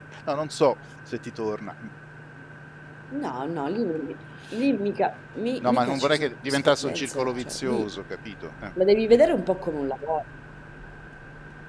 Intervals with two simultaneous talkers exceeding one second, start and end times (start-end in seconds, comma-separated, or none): 5.6-8.0